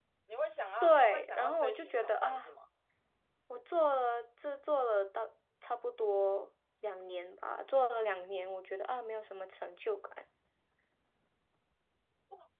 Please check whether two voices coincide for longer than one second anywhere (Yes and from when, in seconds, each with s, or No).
Yes, from 0.8 s